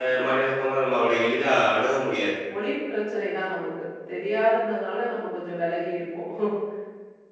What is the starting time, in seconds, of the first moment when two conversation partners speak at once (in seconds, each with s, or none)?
none